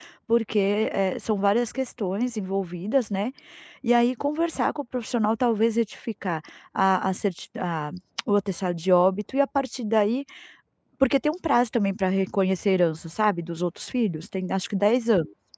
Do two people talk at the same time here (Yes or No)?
No